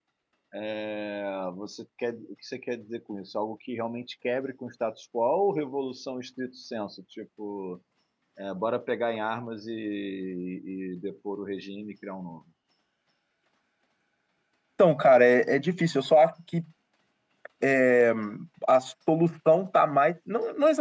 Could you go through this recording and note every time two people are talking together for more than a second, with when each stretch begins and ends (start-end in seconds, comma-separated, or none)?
none